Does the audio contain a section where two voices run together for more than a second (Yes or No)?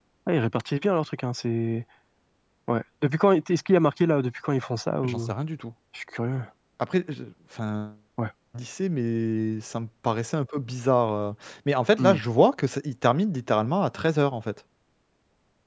No